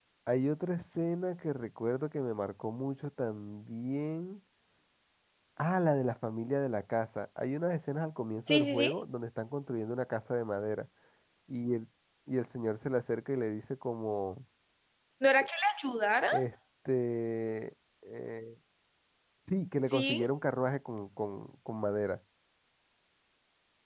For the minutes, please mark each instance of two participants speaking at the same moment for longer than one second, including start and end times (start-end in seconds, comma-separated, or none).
none